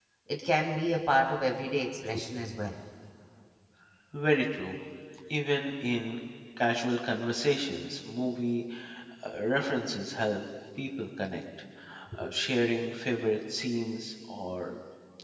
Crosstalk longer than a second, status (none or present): none